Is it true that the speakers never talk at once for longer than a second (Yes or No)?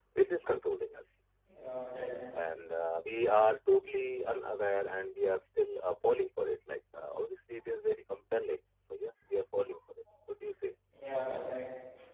Yes